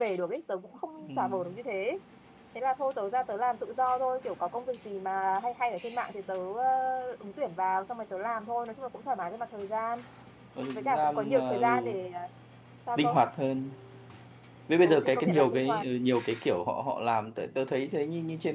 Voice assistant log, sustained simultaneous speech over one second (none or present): present